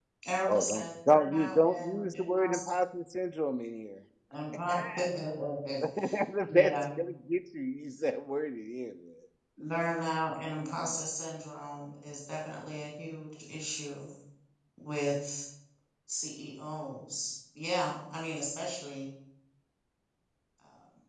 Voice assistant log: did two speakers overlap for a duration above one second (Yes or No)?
Yes